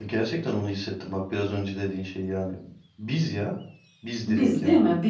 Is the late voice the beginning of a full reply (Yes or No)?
Yes